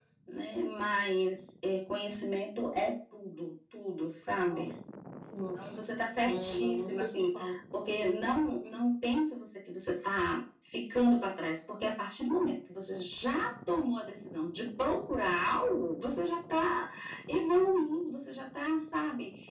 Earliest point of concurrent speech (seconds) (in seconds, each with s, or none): 5.6 s